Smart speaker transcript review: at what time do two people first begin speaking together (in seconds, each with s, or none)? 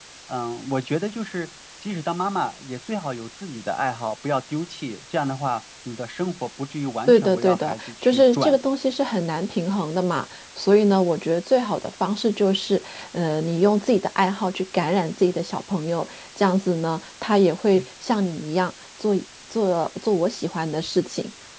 7.1 s